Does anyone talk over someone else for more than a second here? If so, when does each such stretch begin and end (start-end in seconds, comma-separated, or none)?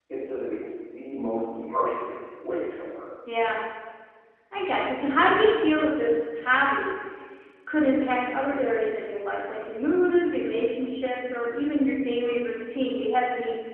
none